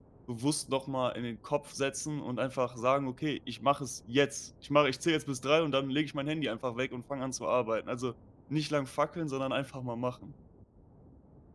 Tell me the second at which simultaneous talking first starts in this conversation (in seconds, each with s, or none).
none